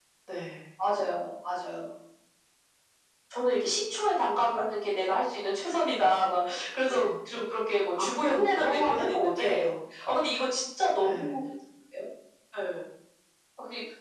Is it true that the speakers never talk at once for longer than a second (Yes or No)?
No